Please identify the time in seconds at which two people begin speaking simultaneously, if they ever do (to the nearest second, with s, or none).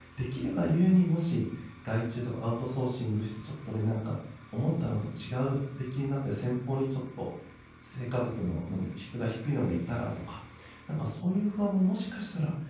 none